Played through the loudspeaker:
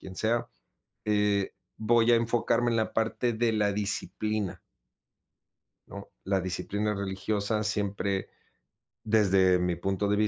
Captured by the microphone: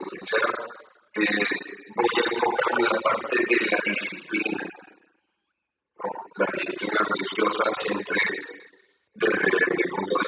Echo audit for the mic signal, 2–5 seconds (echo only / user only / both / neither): echo only